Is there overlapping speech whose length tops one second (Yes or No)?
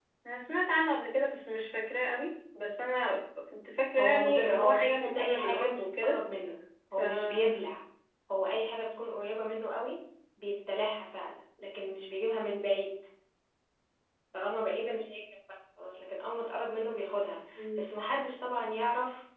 Yes